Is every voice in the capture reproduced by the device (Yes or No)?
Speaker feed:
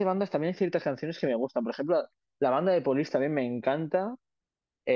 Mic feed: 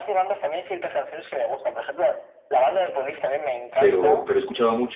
No